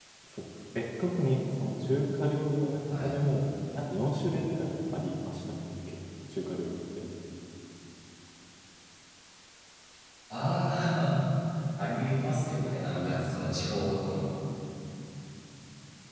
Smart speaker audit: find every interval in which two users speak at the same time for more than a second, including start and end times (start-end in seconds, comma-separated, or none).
12.3-13.6